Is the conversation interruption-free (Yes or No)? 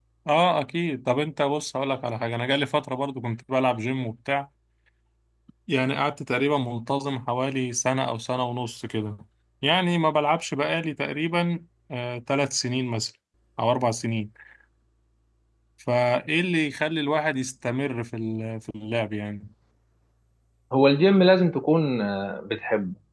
Yes